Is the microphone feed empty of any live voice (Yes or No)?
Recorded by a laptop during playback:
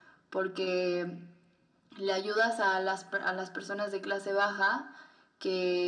Yes